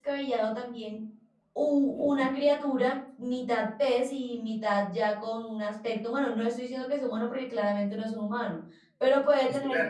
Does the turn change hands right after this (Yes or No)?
No